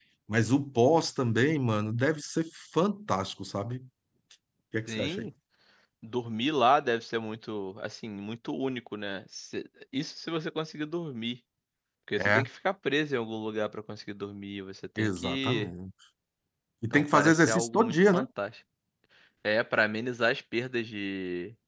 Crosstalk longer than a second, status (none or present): present